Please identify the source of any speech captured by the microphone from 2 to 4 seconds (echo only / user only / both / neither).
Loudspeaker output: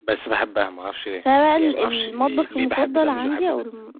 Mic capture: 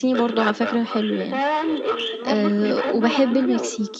both